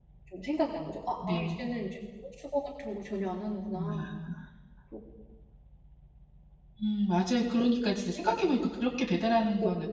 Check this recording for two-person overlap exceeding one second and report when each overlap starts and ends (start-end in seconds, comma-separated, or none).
none